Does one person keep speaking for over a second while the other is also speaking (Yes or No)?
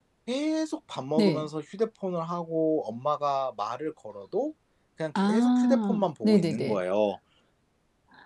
Yes